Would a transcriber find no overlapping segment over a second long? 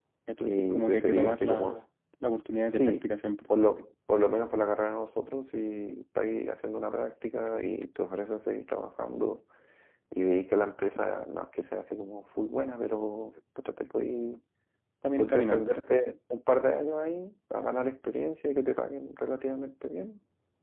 No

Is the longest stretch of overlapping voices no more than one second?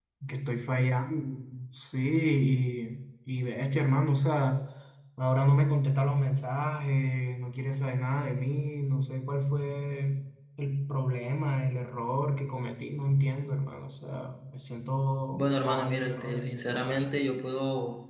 No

